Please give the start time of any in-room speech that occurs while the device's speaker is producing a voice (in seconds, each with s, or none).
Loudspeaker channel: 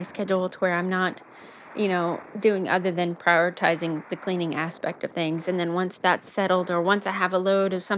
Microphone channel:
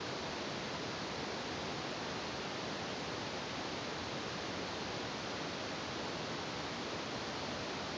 none